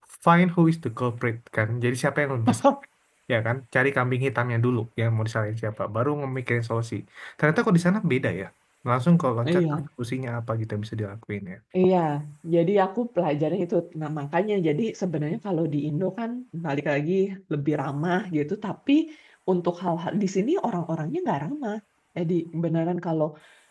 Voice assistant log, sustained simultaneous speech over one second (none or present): none